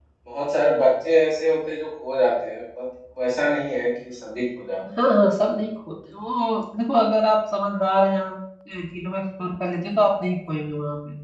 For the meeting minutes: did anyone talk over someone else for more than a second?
No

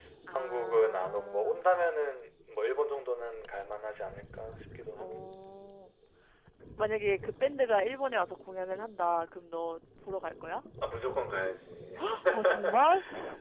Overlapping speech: Yes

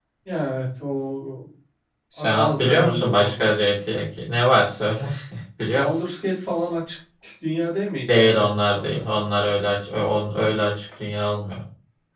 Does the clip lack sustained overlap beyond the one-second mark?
No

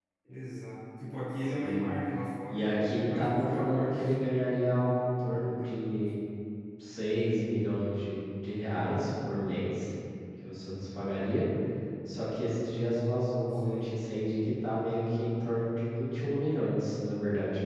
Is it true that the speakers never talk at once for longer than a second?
No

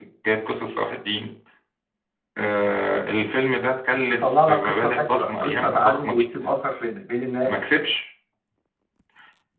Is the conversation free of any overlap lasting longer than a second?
No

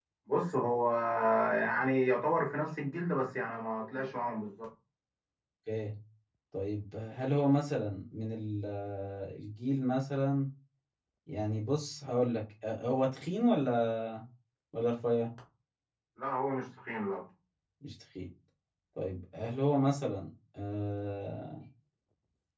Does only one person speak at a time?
Yes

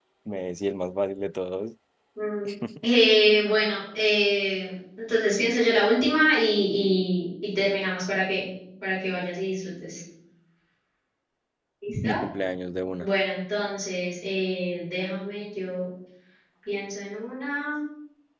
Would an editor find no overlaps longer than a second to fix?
Yes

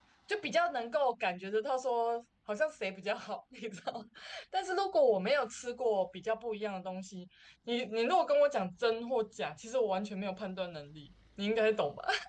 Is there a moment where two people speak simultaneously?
No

